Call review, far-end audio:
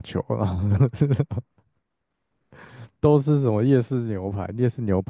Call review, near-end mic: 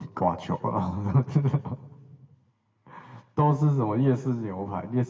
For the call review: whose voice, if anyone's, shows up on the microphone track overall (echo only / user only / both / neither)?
echo only